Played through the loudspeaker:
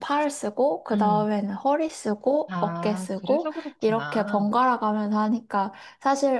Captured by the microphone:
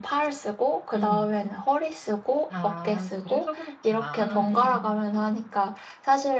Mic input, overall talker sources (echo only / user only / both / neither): both